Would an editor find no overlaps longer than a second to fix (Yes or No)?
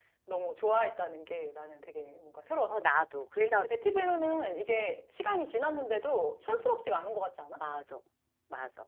Yes